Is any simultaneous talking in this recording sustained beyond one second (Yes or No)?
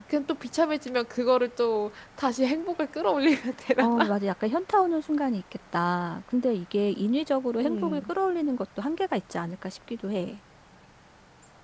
No